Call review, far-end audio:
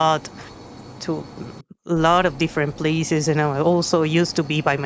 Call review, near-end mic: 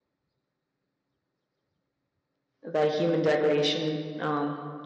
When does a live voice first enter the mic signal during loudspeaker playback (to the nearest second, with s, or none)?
3 s